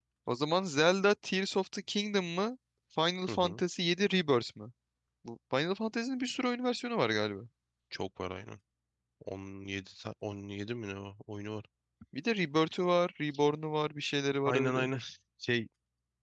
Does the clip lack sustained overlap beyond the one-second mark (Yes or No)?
Yes